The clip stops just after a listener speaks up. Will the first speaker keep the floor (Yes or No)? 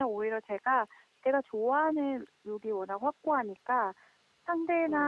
Yes